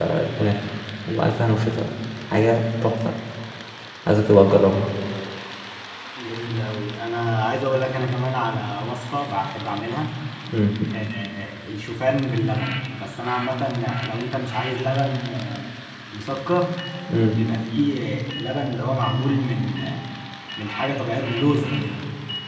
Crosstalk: none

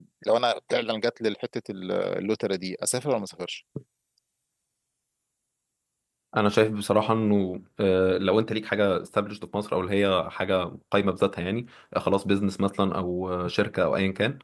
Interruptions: none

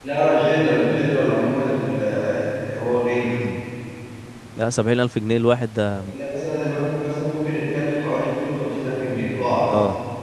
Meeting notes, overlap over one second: none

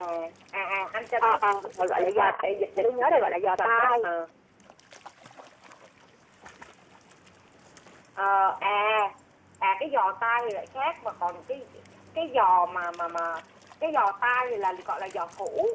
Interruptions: present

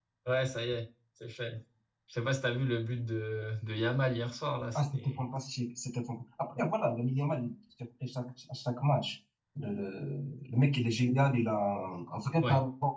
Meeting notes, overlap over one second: none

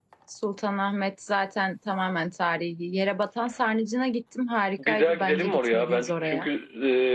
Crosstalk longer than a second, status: present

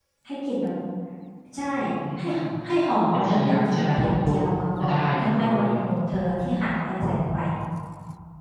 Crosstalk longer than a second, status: present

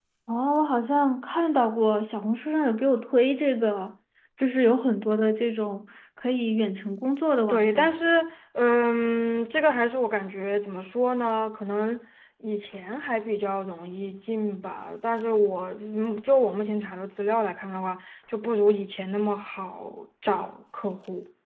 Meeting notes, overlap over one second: none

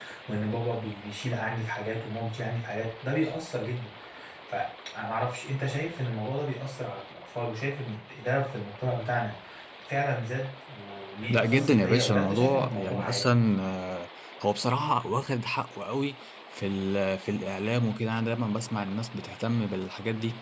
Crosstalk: present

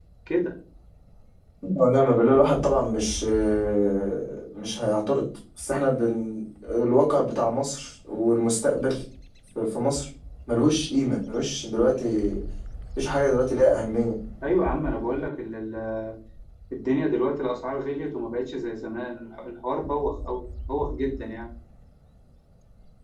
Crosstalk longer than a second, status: none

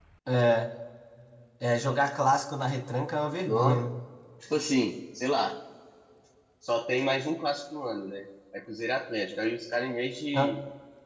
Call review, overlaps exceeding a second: none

